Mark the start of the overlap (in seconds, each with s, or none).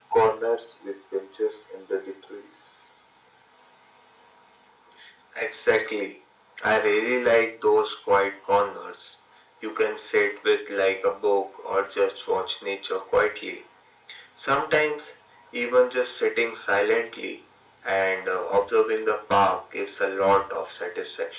none